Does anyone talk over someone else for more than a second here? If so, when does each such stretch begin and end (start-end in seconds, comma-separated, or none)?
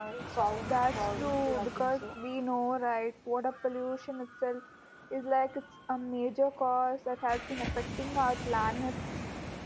0.7-2.1